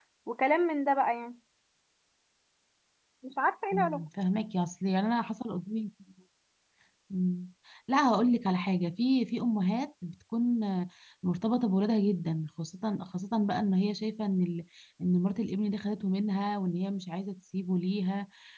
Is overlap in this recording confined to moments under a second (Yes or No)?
Yes